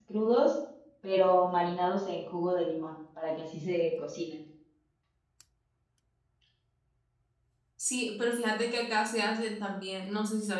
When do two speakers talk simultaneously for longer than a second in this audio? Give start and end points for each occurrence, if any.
none

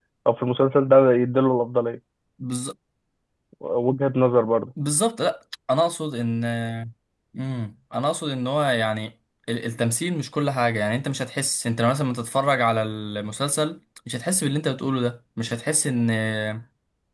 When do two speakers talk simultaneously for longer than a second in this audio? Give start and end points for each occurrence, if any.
none

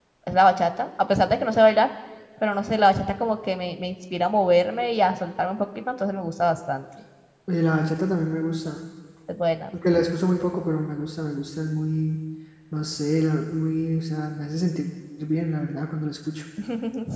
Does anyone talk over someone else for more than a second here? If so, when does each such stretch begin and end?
none

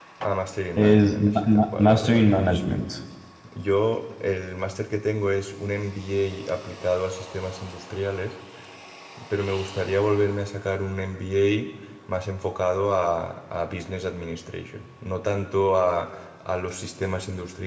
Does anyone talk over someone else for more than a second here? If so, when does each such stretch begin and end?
0.8-2.3

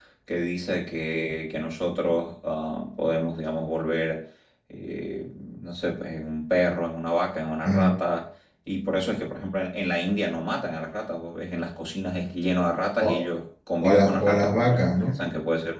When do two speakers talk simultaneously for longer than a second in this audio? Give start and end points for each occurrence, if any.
13.8-15.2

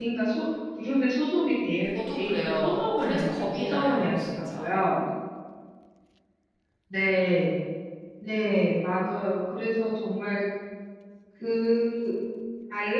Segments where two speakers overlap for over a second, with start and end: 1.8-4.6

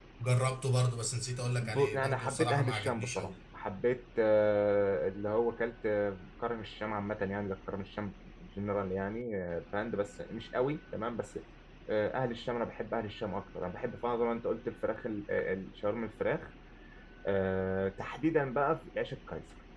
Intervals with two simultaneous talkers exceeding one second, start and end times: 1.6-3.3

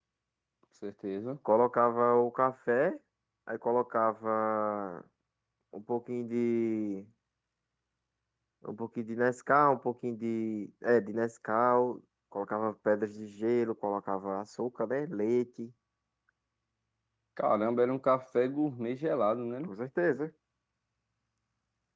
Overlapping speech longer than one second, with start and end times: none

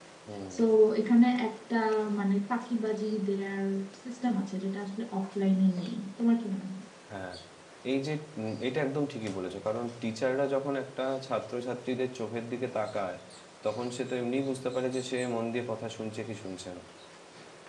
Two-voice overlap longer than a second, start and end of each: none

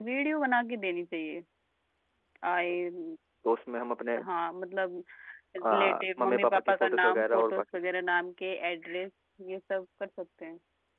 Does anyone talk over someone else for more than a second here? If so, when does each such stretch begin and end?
5.6-7.6

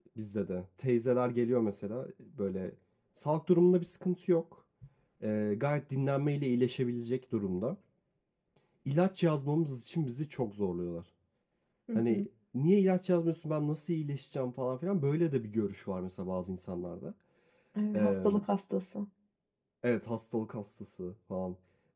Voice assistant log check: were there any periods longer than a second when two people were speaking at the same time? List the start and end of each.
none

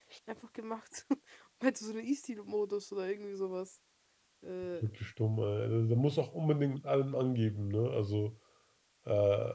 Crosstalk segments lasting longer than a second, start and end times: none

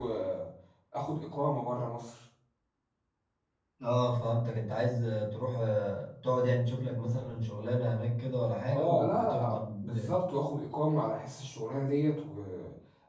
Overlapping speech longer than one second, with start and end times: 8.6-10.1

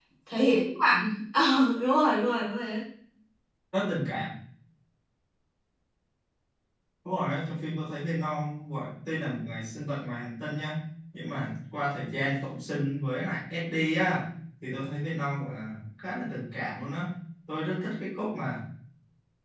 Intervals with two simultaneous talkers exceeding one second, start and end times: none

